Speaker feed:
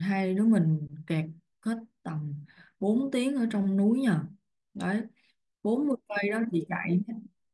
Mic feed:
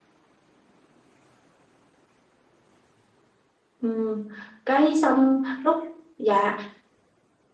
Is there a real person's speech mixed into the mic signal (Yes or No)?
Yes